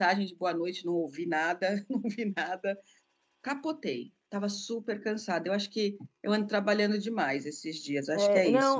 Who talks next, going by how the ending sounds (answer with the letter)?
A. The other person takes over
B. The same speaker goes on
A